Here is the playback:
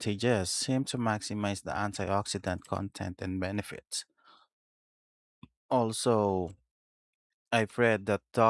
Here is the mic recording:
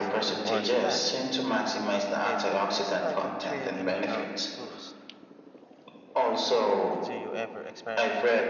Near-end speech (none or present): present